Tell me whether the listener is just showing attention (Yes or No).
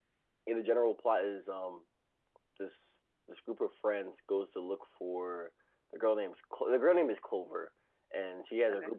Yes